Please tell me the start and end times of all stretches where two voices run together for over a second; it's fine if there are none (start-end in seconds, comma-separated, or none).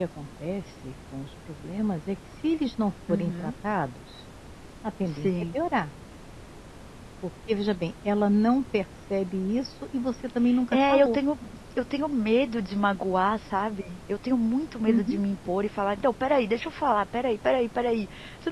none